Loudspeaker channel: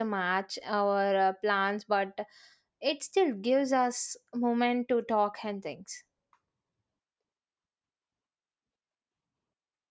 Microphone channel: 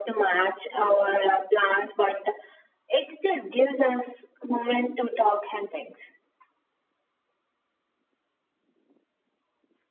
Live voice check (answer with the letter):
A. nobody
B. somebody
A